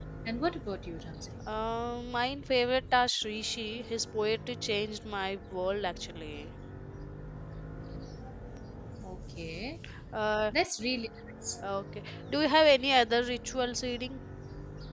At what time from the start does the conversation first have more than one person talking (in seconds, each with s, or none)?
none